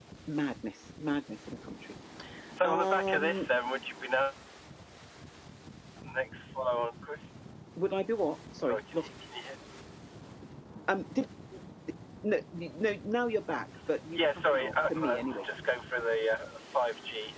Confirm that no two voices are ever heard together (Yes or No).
No